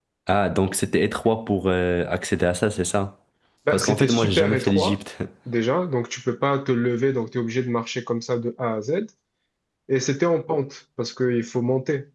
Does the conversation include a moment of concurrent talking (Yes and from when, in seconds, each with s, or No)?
Yes, from 3.7 s